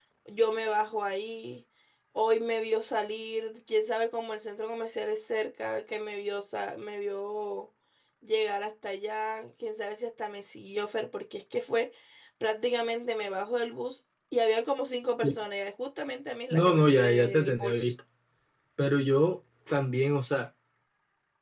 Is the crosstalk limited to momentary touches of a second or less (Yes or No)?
No